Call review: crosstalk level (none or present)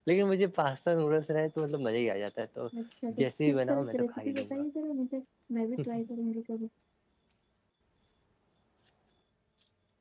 present